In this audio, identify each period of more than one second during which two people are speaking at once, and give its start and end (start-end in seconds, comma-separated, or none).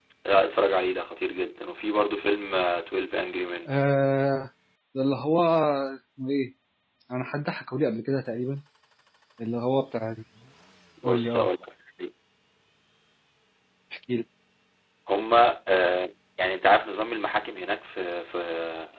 none